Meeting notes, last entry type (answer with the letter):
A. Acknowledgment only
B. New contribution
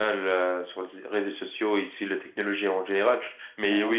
A